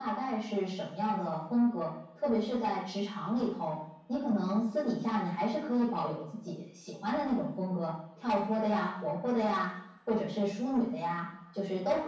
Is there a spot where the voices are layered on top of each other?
No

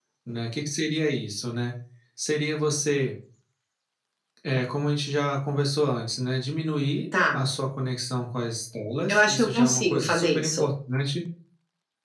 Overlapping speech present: Yes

